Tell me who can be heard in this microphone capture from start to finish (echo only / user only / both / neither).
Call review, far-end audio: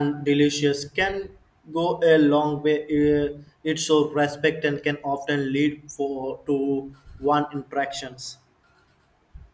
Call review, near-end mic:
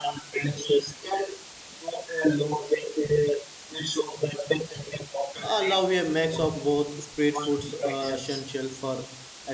both